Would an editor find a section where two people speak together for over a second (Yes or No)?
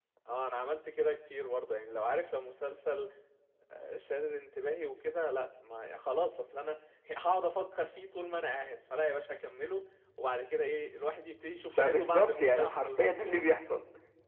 Yes